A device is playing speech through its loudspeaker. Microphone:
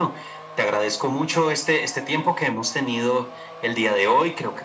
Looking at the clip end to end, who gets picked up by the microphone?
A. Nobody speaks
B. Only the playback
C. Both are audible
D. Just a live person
B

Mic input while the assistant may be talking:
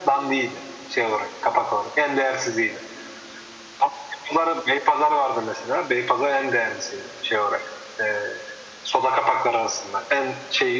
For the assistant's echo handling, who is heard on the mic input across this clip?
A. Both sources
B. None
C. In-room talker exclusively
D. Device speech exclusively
D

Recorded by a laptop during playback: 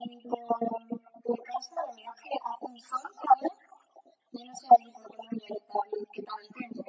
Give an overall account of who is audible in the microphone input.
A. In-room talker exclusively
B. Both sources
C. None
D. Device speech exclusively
D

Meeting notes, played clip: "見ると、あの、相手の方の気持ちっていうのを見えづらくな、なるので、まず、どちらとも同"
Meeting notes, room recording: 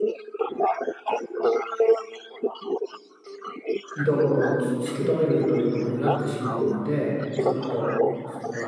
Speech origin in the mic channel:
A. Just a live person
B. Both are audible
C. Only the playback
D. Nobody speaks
B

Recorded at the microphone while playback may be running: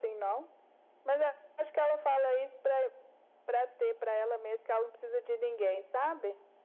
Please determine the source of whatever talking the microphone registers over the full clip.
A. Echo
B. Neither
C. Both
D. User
A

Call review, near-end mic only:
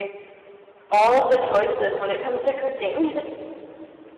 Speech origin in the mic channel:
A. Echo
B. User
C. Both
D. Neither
B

